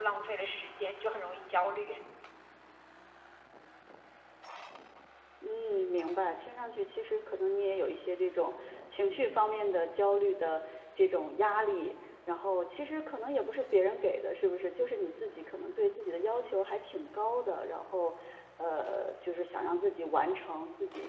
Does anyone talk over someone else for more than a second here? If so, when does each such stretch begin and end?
none

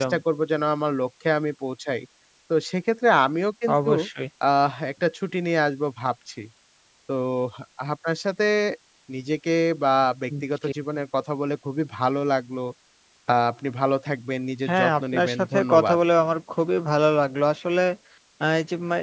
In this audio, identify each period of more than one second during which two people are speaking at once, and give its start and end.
14.7-16.0

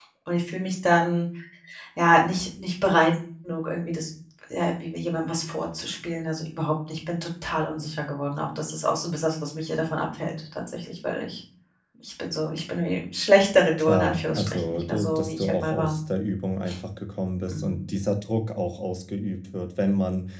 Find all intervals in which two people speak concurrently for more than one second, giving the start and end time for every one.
13.8-15.9

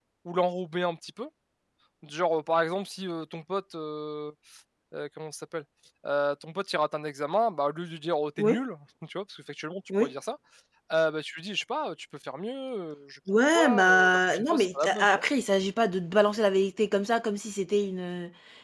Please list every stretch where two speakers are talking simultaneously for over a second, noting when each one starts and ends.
13.3-15.2

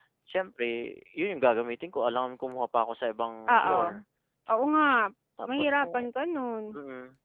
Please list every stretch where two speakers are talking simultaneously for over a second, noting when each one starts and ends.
none

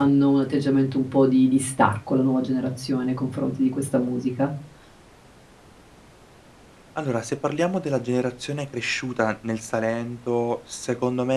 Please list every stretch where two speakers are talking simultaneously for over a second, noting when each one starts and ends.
none

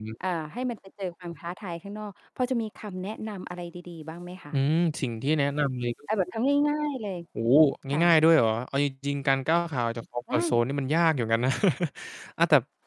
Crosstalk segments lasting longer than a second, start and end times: none

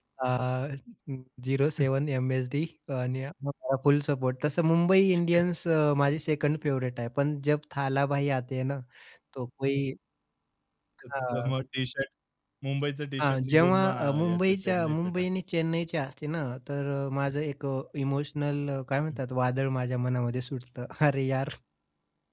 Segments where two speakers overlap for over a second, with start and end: 13.2-15.2

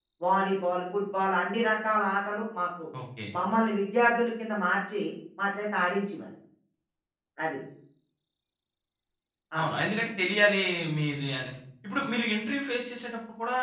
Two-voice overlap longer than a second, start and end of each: none

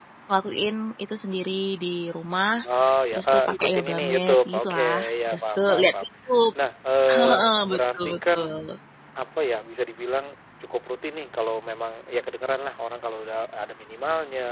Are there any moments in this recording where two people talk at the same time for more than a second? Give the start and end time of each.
3.1-5.9, 7.1-8.4

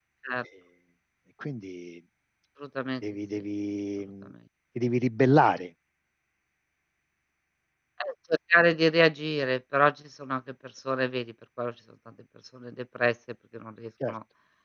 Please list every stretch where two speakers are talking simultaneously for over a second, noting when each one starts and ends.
none

